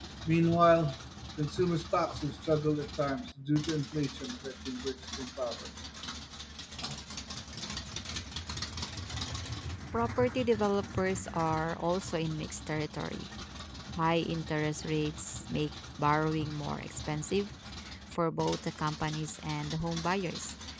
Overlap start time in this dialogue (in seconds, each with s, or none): none